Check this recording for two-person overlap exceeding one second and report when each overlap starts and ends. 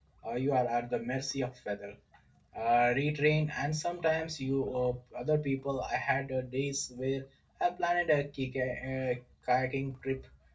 none

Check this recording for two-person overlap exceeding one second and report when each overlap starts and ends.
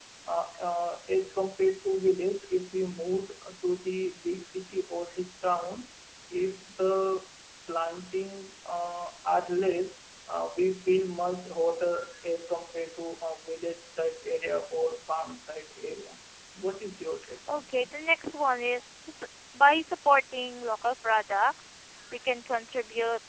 none

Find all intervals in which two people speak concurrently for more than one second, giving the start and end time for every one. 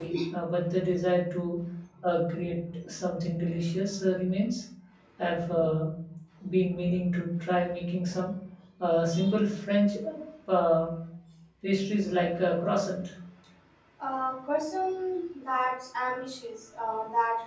none

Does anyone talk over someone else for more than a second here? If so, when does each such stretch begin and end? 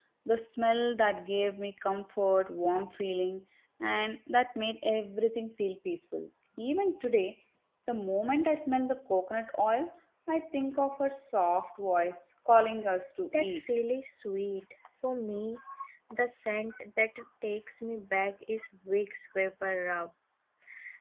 none

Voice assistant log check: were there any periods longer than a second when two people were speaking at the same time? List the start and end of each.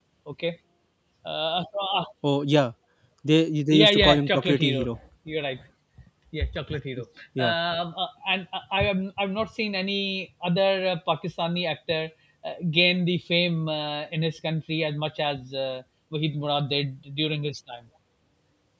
3.7-5.0

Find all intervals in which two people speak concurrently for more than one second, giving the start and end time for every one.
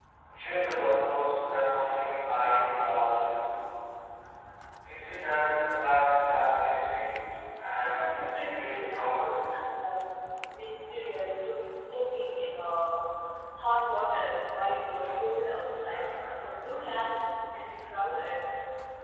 7.8-9.4

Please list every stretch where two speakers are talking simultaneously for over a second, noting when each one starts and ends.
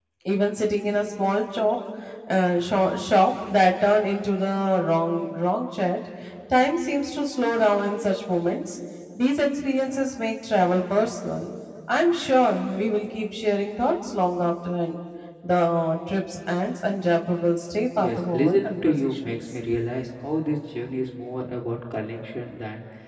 18.0-19.3

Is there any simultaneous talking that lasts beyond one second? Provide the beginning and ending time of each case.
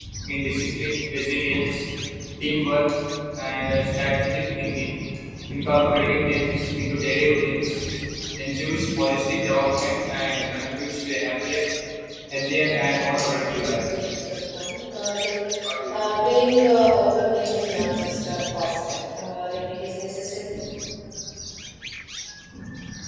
12.6-13.9

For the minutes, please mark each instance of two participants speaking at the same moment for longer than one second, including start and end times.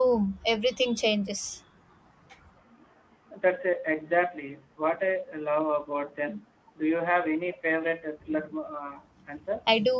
none

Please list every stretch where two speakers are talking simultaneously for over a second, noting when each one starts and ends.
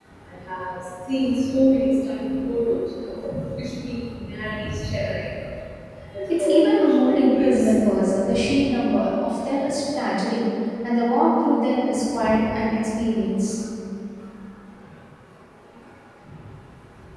6.4-7.7

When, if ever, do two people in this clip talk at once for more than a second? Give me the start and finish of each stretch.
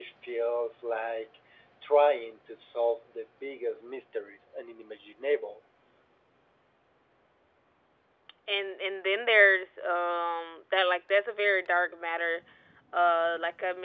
none

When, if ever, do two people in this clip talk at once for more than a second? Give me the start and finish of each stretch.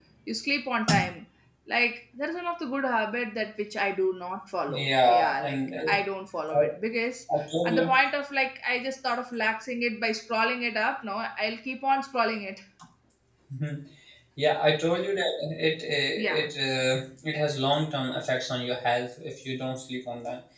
4.7-5.9

